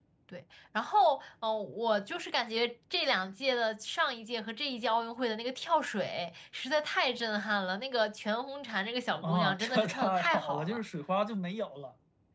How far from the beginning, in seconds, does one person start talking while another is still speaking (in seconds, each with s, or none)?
9.2 s